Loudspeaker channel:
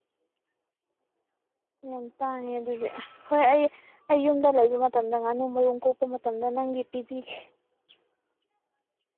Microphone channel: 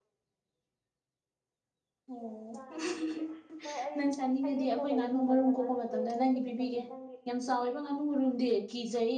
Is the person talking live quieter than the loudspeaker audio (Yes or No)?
No